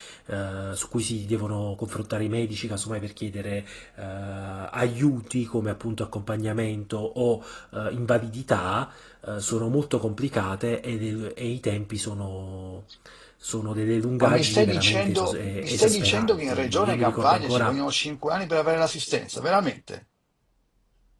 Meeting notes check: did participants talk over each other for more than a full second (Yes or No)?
Yes